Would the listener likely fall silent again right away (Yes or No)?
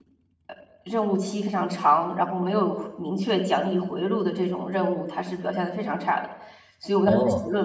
Yes